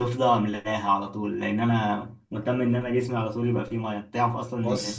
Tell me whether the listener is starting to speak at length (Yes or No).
No